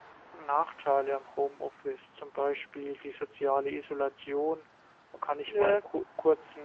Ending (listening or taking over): listening